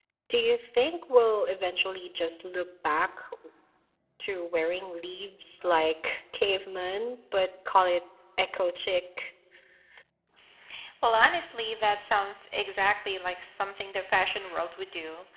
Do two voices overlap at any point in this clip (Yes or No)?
No